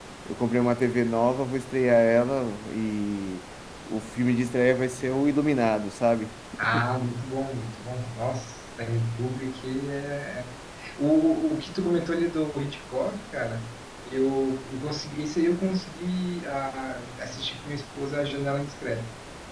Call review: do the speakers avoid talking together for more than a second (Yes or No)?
Yes